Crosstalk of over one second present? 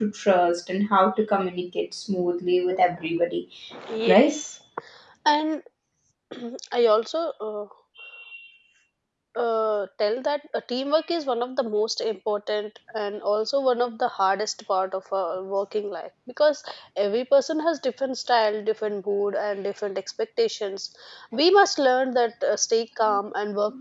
No

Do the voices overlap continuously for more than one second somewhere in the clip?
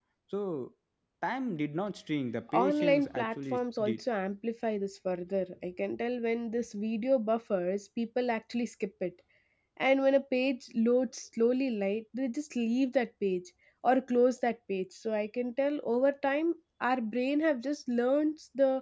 Yes, from 2.5 s

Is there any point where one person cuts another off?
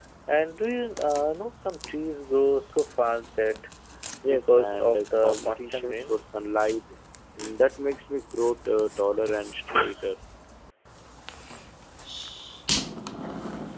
Yes, from 4.3 s

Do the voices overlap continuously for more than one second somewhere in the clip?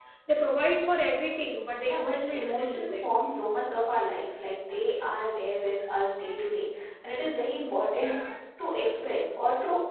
Yes, from 1.8 s

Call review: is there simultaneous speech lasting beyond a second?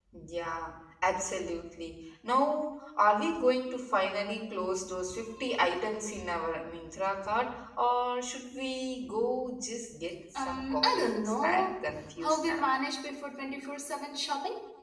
Yes, from 10.4 s

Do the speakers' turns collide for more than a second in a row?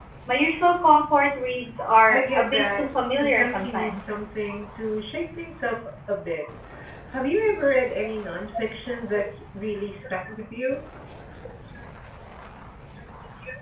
Yes, from 2.1 s

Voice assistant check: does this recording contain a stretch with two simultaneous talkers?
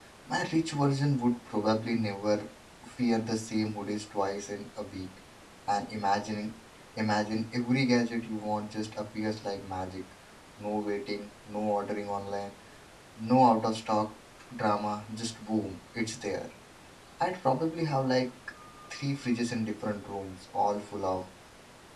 No

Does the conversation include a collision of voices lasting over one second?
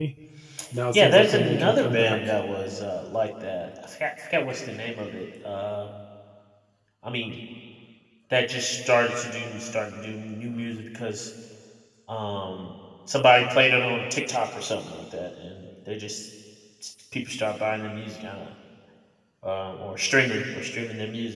Yes, from 0.9 s

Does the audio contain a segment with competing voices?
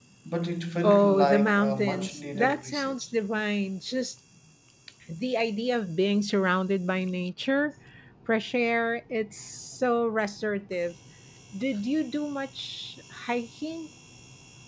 Yes, from 0.8 s

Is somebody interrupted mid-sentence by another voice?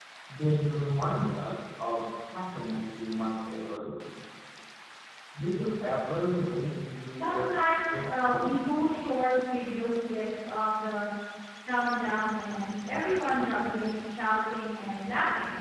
Yes, from 7.2 s

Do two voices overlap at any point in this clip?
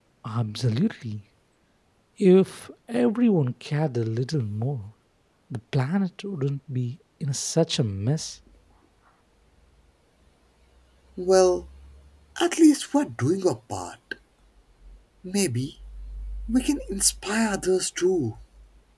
No

